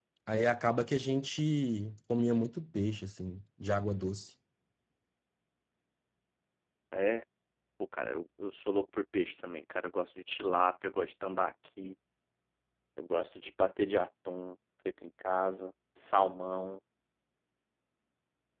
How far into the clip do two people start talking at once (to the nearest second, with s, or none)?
none